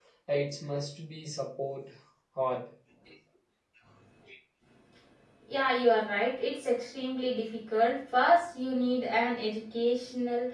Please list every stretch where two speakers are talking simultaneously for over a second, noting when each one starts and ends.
none

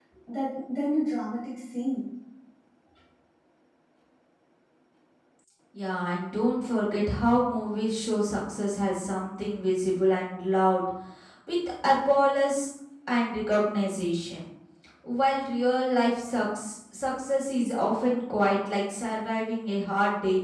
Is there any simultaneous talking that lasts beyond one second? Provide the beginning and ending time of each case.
none

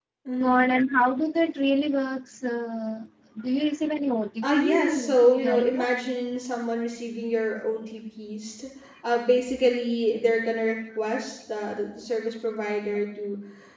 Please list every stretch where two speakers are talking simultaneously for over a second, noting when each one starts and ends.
4.4-5.9

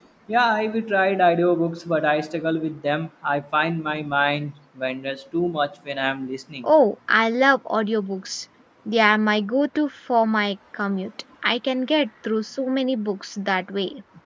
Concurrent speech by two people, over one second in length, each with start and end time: none

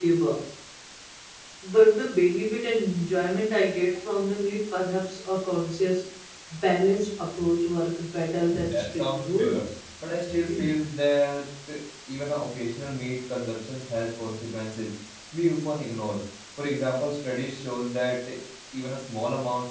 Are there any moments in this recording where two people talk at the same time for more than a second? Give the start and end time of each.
8.5-9.7

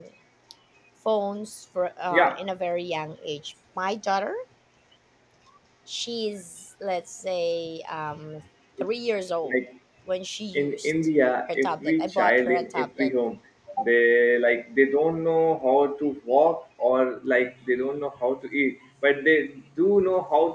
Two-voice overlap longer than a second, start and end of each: 11.6-13.1

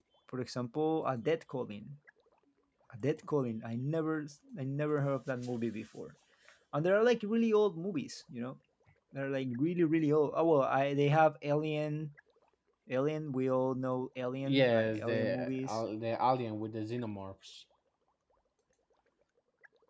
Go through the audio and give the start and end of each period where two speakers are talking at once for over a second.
14.4-15.8

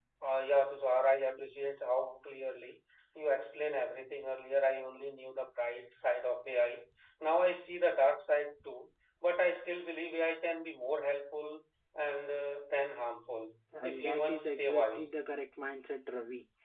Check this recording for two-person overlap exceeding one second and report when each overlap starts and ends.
13.7-15.1

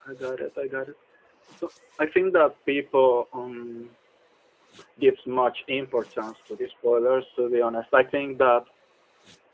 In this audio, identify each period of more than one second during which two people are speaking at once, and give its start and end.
none

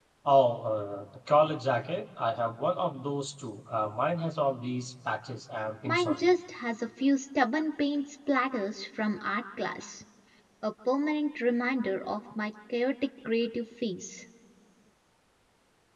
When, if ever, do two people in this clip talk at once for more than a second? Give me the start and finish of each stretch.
none

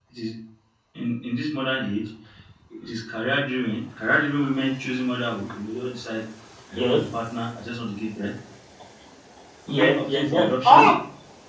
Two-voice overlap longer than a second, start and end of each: 9.7-10.9

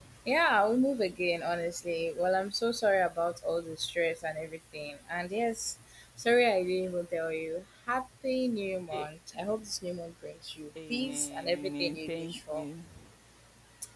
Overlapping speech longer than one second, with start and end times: 10.9-12.7

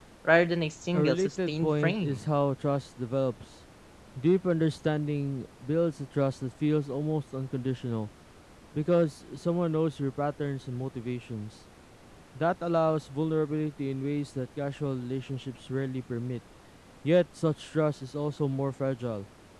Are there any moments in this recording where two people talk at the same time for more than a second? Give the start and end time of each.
0.9-2.2

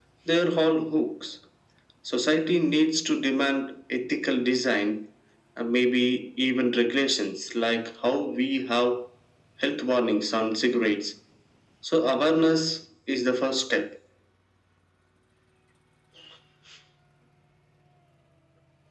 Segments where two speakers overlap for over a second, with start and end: none

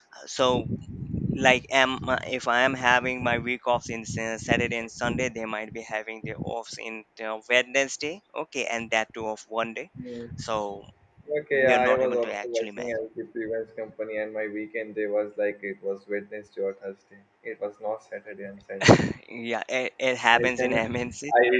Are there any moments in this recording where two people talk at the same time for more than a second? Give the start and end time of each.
11.6-12.9

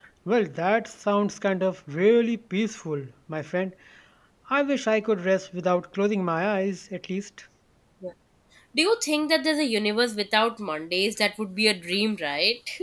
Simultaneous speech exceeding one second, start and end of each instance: none

